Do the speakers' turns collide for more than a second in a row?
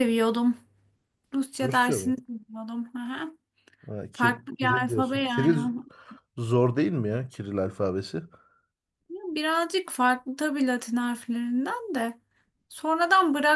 Yes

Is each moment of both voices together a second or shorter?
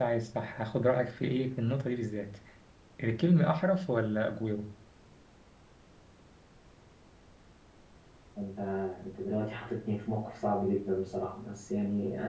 Yes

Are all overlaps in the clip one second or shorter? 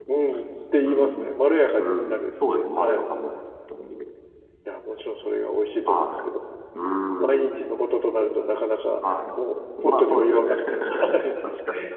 No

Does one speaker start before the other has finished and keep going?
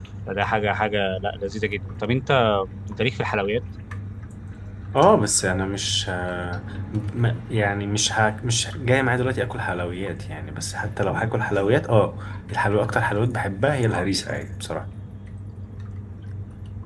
No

